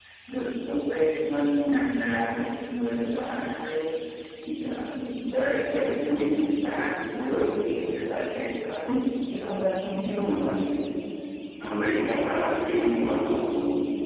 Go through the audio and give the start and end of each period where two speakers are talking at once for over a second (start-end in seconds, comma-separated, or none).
none